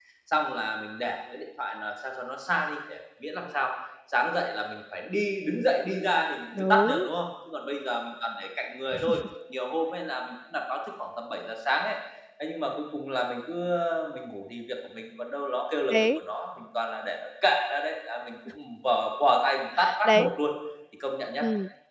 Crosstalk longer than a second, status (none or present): none